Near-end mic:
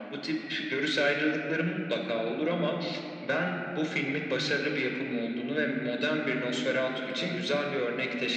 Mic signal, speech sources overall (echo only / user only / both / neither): echo only